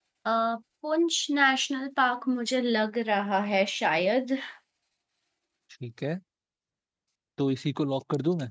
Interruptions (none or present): none